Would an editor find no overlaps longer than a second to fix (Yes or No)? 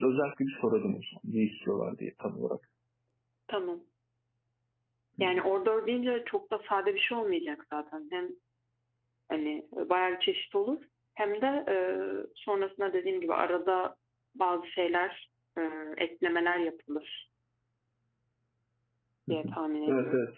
Yes